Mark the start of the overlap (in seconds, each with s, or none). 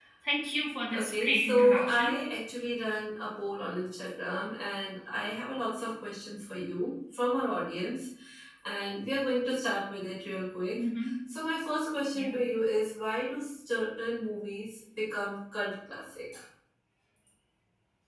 0.9 s